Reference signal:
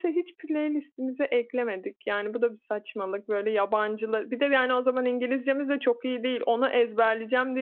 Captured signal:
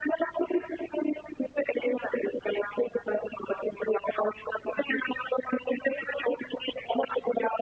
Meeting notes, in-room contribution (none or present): none